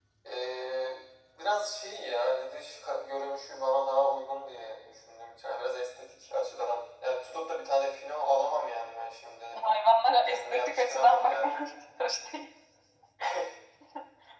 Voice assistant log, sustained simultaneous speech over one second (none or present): present